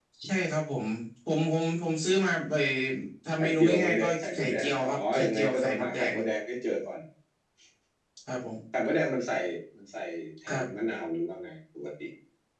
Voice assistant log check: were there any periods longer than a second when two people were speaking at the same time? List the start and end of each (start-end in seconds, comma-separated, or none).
3.4-6.1